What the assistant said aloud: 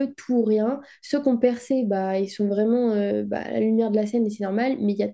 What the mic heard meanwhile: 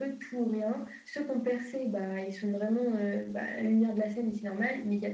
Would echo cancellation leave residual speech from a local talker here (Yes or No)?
No